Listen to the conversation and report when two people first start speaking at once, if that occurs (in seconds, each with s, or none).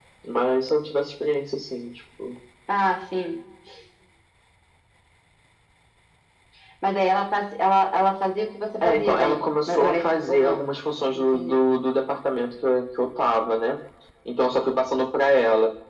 8.8 s